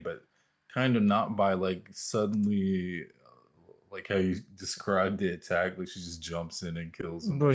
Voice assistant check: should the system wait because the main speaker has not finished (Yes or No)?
No